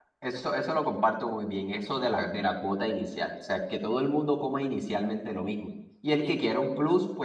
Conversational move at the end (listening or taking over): listening